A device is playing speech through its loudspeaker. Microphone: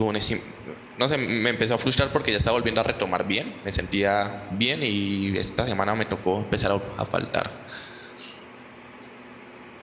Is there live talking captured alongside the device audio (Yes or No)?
Yes